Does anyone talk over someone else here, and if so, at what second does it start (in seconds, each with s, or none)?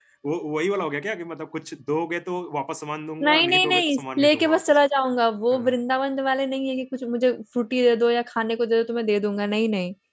3.2 s